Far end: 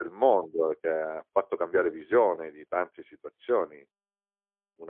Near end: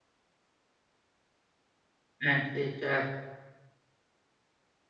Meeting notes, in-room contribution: present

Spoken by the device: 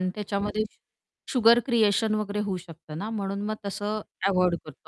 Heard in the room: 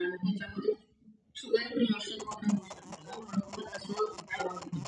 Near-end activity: none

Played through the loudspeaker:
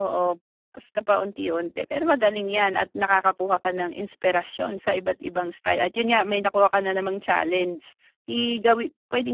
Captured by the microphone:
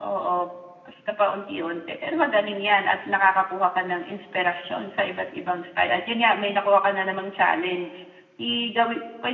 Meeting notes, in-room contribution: none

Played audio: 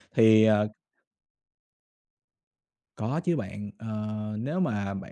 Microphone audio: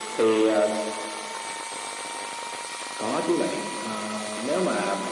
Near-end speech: none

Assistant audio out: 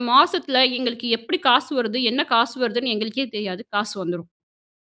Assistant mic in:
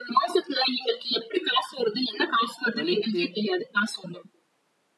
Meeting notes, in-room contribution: present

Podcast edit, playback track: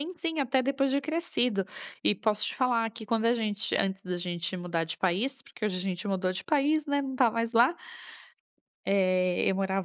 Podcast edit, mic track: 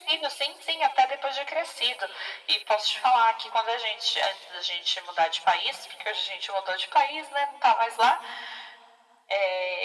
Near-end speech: none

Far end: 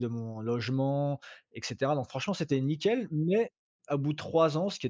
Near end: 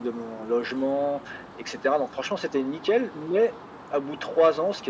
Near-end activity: none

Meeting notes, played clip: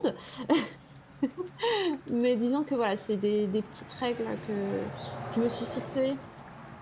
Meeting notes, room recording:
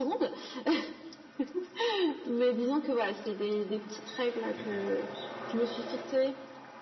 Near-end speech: present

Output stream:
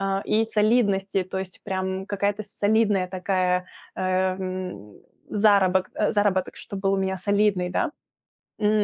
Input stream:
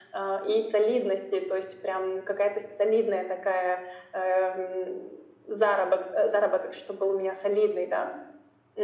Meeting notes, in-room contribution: none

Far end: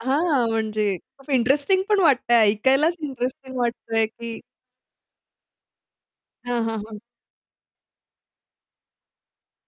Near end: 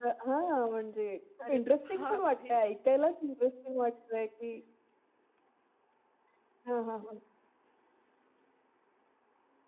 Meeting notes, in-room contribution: present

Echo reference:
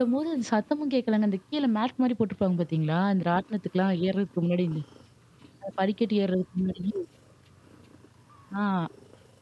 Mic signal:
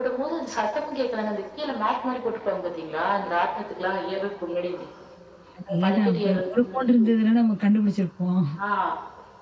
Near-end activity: present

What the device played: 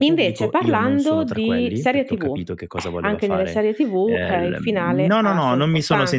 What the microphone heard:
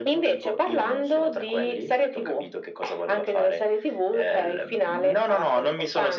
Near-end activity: none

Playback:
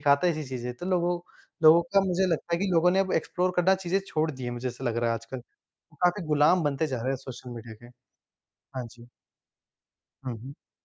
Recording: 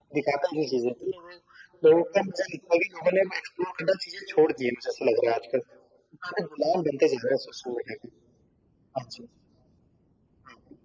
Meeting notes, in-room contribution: none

